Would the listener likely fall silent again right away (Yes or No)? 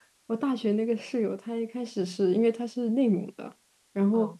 Yes